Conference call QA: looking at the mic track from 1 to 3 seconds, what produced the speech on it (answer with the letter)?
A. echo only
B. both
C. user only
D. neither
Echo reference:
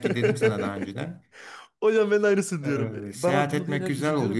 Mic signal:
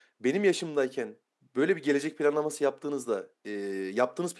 C